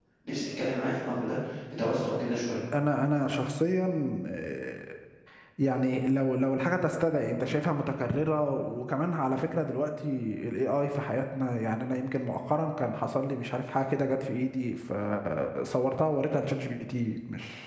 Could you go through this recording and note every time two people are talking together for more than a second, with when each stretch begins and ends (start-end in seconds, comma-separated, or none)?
none